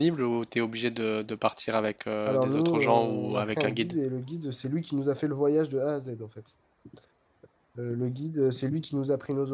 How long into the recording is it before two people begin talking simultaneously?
2.3 s

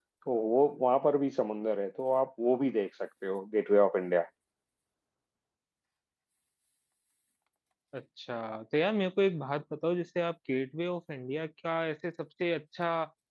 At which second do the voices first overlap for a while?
none

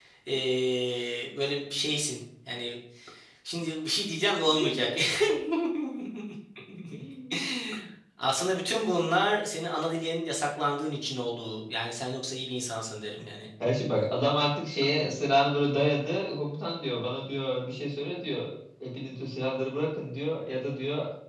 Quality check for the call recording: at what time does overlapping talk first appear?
none

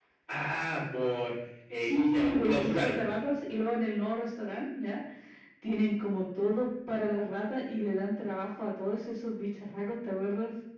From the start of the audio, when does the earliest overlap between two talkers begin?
1.8 s

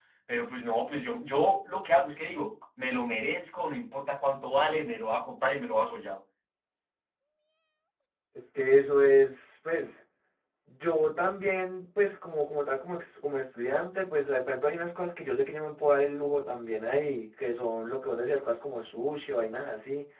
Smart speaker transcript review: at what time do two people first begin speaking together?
none

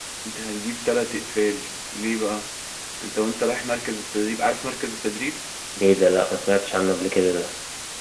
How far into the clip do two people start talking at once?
none

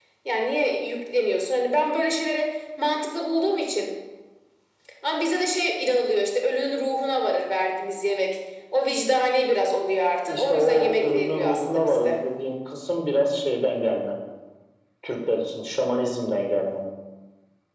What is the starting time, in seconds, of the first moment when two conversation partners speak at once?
10.3 s

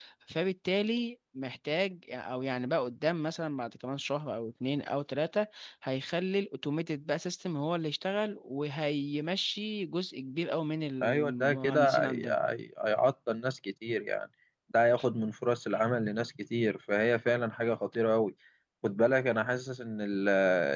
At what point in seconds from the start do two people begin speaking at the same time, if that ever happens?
11.0 s

